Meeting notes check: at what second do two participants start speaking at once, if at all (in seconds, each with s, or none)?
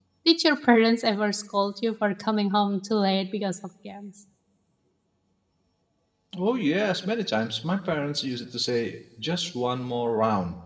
none